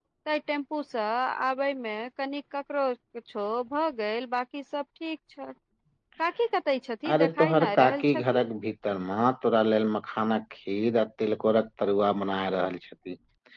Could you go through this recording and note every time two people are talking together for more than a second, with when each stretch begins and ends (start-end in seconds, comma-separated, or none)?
7.1-8.4